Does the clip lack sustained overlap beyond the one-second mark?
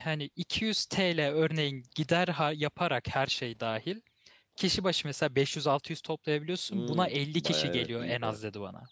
No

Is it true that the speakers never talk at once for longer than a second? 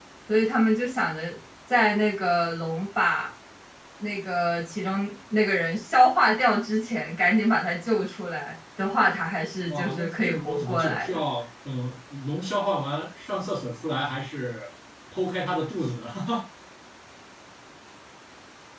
No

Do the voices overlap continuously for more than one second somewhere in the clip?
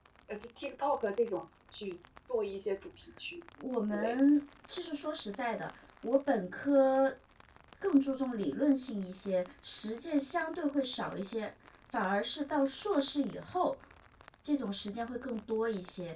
No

